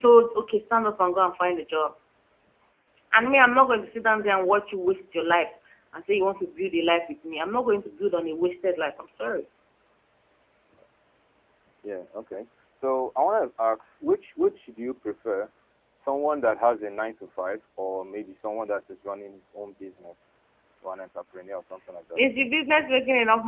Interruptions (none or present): none